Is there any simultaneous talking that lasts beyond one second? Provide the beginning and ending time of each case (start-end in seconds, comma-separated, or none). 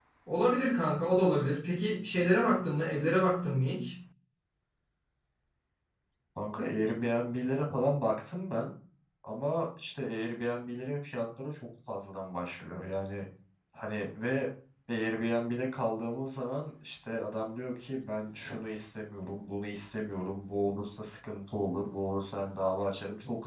none